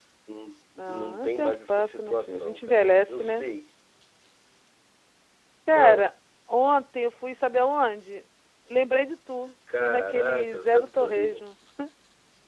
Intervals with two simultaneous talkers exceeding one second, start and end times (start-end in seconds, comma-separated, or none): 0.9-3.4, 9.8-11.4